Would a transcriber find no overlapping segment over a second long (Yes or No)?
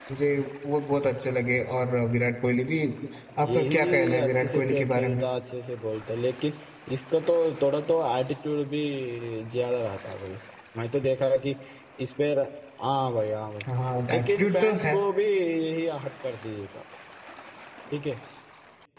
No